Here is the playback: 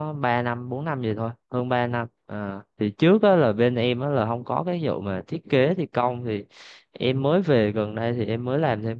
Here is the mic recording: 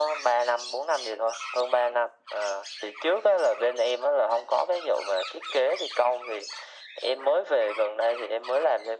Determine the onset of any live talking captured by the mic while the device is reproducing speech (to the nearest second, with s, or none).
none